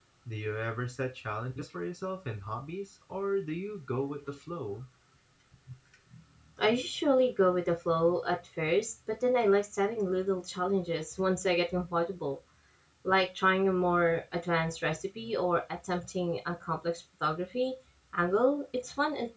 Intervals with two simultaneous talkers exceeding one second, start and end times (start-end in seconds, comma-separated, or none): none